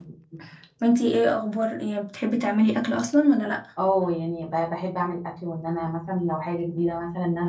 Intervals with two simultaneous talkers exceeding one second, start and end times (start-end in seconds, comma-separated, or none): none